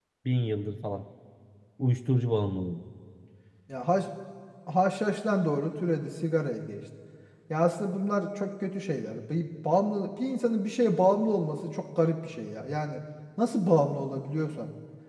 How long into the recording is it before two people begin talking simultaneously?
none

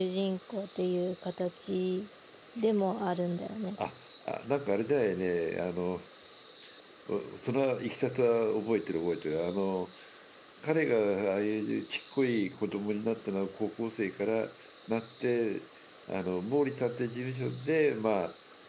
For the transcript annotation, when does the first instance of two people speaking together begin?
none

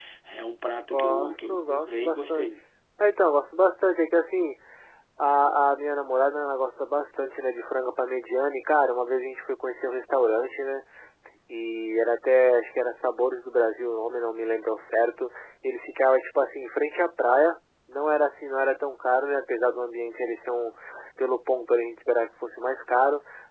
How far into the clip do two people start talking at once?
0.9 s

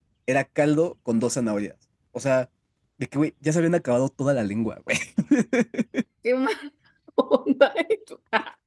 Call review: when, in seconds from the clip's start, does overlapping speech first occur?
none

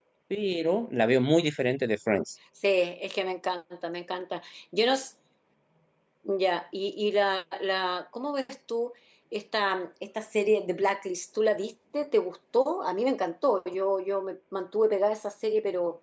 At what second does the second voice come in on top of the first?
none

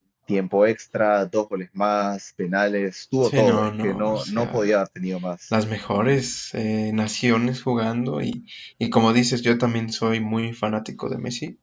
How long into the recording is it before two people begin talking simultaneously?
3.2 s

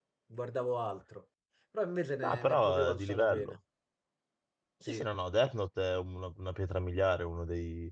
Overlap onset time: 2.2 s

